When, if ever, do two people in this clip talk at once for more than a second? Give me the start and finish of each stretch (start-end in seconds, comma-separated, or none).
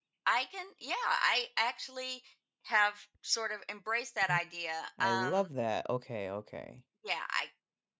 none